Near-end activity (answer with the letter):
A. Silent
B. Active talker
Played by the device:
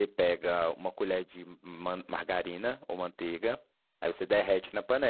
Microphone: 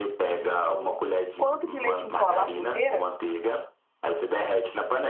B